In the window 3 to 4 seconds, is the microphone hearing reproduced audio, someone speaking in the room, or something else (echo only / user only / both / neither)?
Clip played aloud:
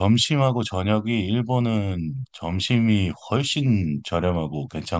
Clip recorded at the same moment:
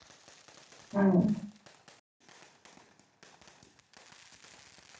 neither